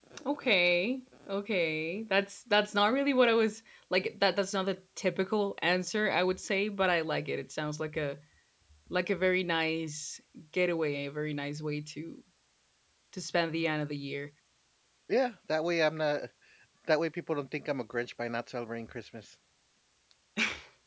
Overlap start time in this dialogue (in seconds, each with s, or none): none